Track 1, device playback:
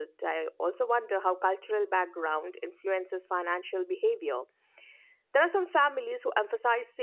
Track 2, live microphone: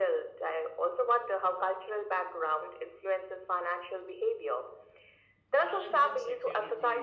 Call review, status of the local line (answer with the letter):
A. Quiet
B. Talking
B